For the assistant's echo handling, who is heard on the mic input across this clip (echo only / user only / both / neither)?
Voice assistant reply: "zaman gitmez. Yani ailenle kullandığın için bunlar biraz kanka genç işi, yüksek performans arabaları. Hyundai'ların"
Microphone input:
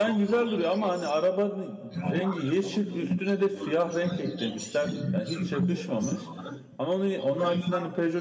both